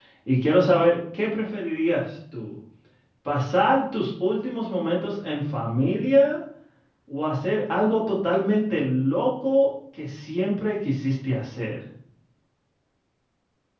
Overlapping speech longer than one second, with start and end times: none

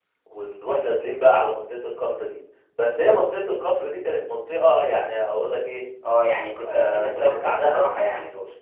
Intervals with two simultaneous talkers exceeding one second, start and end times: 6.7-8.1

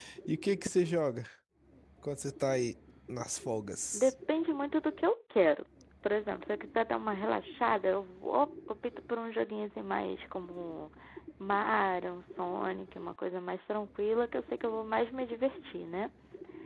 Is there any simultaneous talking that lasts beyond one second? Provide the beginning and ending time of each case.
none

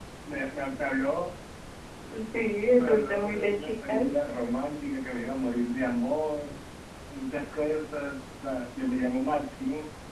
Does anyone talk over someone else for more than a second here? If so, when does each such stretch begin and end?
2.7-4.0

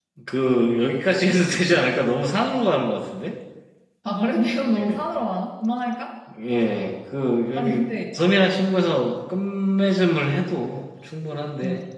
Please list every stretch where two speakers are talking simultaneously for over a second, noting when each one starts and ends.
none

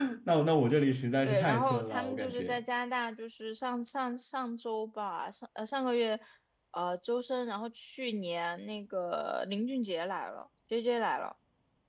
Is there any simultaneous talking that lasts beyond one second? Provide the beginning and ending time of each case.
1.3-2.6

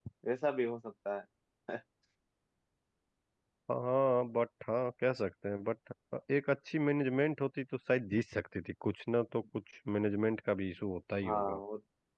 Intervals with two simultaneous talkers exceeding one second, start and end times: none

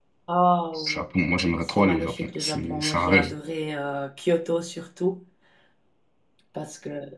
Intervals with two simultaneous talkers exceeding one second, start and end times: 1.6-3.3

